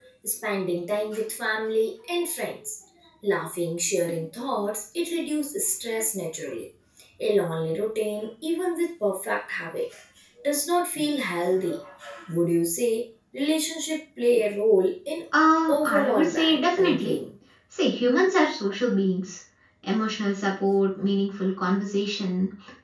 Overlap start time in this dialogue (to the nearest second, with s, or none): 16 s